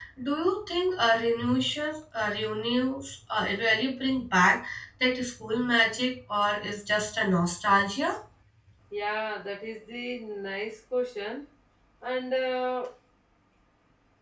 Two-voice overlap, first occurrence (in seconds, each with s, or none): none